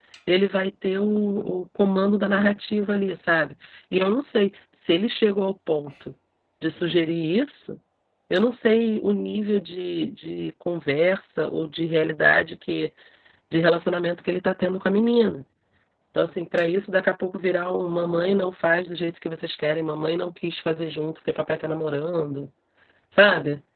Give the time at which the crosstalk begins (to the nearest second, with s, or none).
none